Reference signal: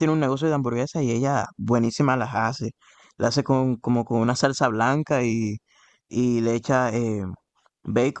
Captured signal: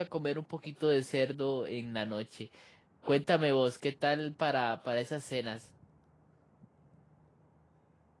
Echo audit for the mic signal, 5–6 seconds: user only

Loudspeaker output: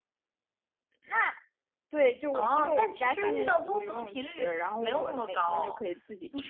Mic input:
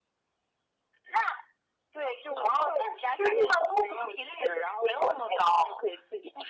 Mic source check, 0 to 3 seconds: echo only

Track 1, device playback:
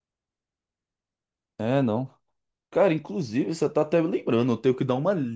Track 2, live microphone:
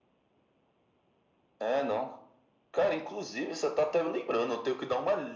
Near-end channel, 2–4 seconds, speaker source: echo only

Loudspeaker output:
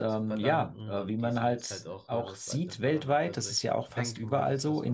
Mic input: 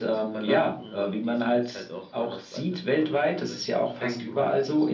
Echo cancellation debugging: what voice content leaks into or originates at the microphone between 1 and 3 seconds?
echo only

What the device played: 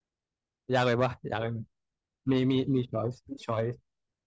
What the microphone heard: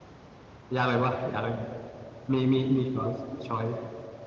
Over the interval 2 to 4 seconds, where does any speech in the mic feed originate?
echo only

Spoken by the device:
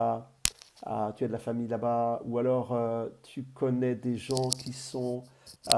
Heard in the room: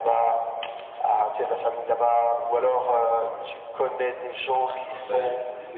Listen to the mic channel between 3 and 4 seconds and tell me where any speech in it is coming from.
echo only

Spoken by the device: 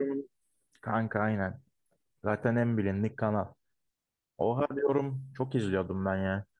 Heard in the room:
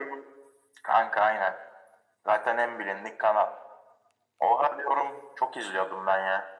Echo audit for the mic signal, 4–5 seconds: echo only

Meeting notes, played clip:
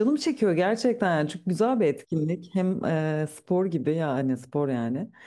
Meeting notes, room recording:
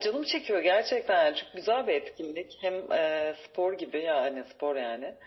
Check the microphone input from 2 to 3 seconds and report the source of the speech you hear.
echo only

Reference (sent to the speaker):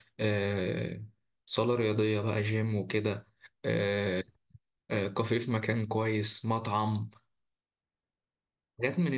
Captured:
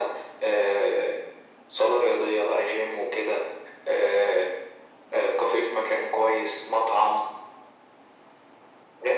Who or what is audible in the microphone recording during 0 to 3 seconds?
echo only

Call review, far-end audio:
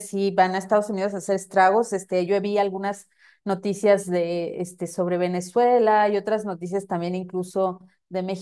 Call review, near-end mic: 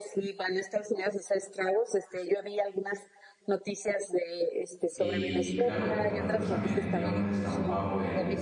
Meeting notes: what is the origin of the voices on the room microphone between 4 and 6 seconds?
both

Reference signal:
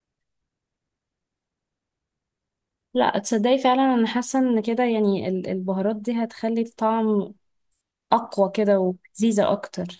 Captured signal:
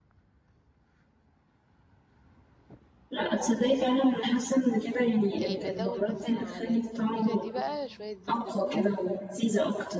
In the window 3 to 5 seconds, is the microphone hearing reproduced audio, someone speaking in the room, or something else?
echo only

